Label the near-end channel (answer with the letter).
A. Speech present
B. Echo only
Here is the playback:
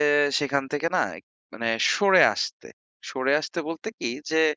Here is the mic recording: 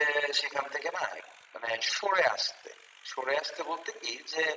B